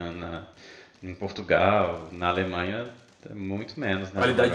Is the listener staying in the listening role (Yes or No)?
No